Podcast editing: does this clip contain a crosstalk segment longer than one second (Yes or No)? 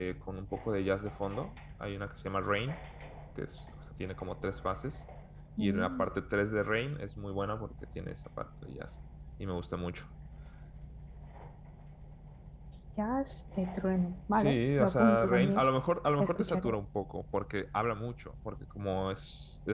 Yes